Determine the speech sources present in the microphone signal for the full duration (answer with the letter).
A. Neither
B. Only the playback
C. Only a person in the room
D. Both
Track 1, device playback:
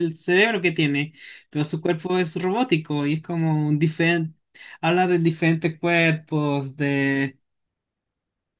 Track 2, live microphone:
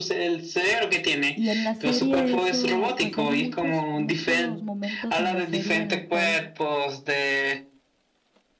D